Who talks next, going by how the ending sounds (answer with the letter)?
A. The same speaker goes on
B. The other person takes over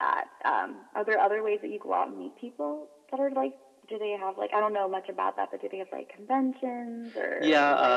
B